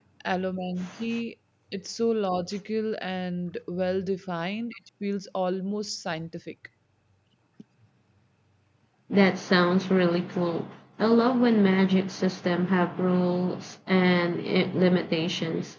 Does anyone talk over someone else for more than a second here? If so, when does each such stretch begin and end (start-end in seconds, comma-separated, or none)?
none